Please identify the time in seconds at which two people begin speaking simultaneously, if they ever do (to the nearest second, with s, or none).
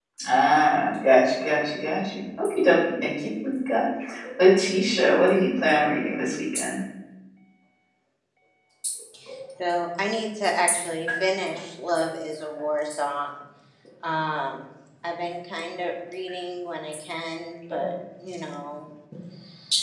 none